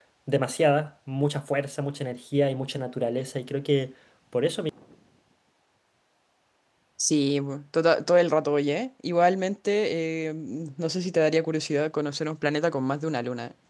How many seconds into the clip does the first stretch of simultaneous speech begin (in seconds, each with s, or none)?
none